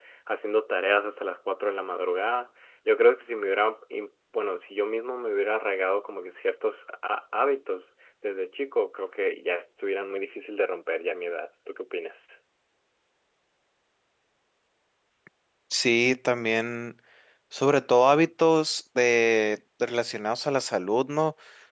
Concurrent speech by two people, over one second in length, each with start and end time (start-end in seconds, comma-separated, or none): none